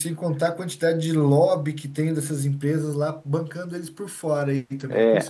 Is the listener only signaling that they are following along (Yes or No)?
No